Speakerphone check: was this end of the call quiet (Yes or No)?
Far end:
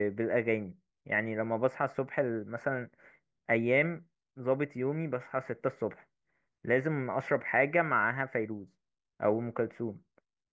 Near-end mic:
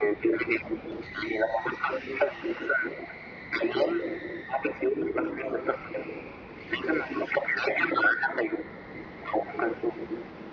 Yes